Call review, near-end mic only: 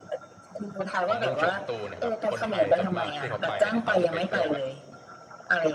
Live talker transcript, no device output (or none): ของเมืองเฉิงตูเนะครับคนไทยส่วนมากที่เขาไปเนี่ยเขาจะไปเที่ยวแบบ